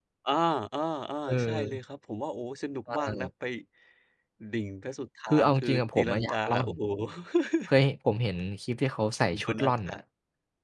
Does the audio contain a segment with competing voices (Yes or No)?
Yes